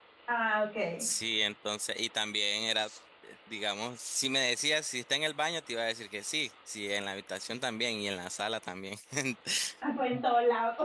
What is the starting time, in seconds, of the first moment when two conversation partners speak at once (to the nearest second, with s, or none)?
none